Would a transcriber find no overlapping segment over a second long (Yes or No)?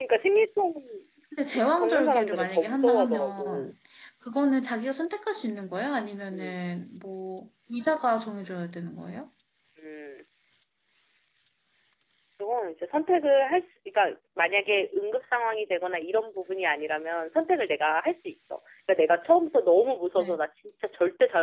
No